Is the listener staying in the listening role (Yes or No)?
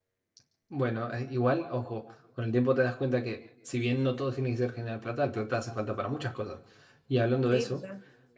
Yes